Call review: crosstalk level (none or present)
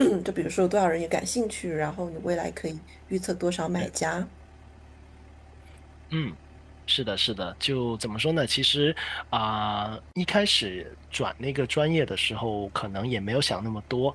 none